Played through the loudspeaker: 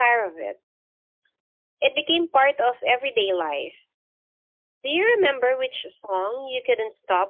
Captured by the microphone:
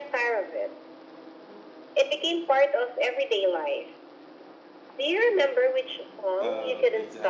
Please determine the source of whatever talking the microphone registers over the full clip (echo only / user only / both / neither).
both